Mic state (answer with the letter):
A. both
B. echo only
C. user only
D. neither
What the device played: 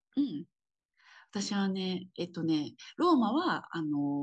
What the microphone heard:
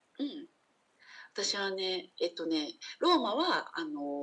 B